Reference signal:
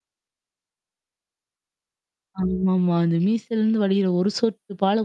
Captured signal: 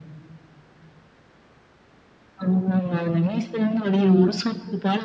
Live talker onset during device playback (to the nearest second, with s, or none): 4 s